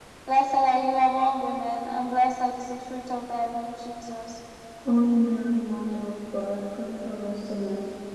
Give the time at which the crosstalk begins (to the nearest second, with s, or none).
none